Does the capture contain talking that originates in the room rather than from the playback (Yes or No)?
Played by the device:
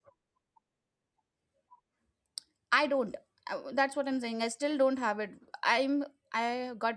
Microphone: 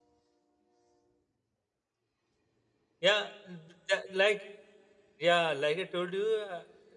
Yes